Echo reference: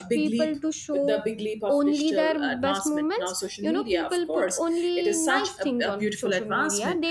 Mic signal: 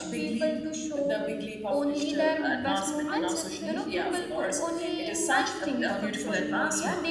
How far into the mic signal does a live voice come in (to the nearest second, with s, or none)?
3 s